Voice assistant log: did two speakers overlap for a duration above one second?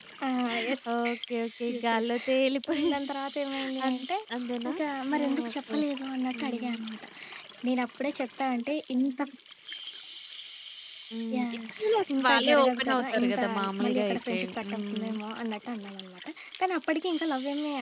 Yes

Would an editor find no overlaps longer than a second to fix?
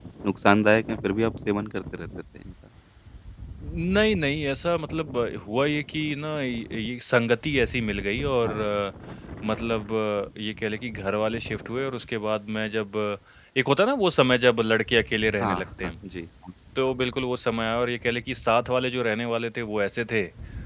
Yes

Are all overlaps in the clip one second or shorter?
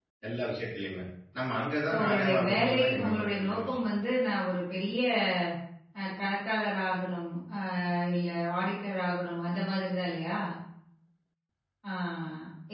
No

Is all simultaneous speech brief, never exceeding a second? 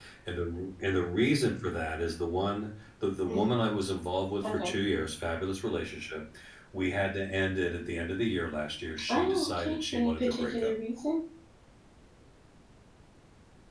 No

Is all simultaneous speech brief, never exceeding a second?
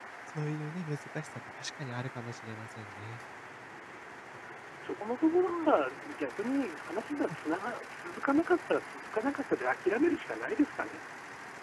Yes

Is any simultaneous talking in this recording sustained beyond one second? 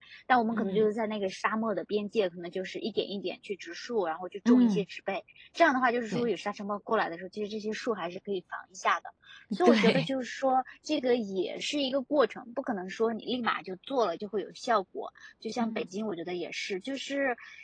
No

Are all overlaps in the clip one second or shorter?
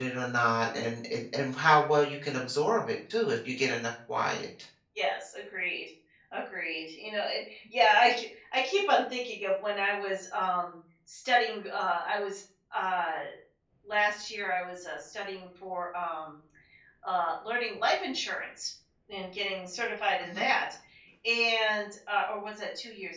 Yes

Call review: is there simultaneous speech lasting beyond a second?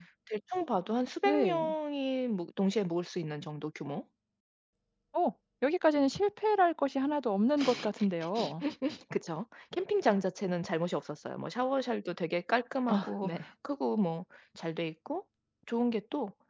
No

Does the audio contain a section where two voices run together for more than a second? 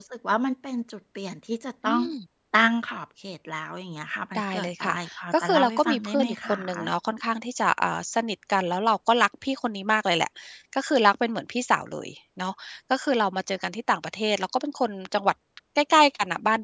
Yes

